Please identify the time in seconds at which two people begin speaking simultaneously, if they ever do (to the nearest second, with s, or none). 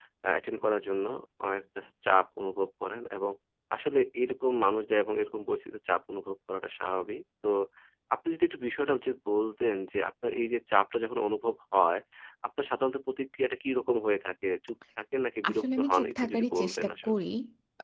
15 s